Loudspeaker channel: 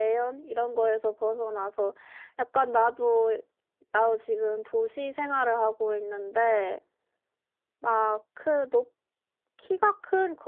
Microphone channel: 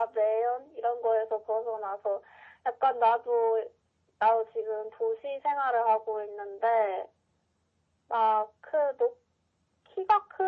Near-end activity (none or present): none